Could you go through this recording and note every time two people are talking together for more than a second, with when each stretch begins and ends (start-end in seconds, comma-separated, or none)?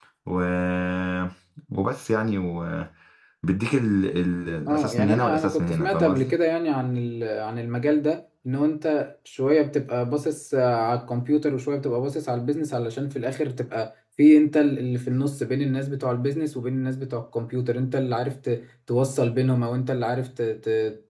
4.7-6.3